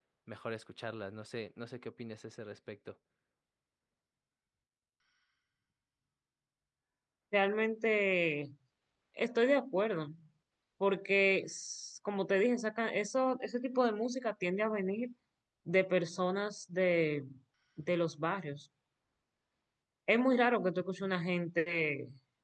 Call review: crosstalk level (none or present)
none